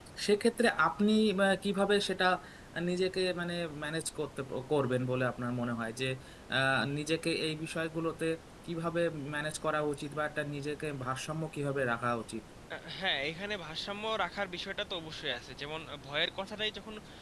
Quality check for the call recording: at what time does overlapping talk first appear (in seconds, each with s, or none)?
none